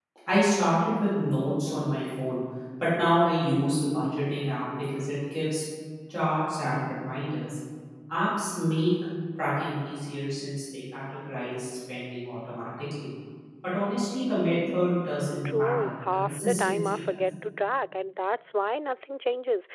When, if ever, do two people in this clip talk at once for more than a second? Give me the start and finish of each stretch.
15.4-17.2

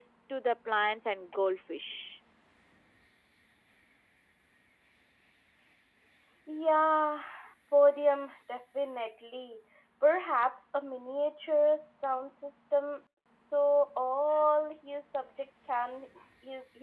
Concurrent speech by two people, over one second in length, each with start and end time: none

